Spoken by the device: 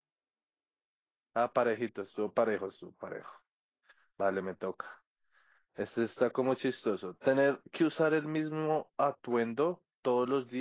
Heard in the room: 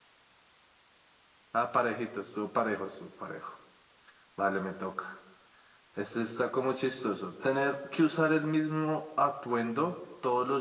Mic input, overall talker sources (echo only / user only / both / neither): echo only